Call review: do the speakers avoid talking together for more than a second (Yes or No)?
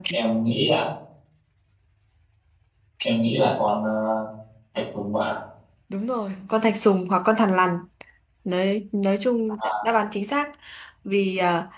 Yes